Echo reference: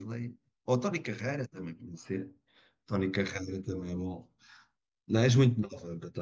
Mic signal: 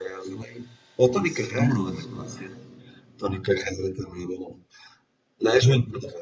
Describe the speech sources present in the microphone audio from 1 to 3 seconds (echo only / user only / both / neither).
both